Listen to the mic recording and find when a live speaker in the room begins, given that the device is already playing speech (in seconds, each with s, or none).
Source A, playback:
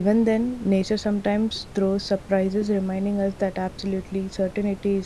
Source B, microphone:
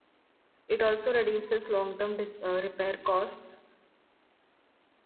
0.7 s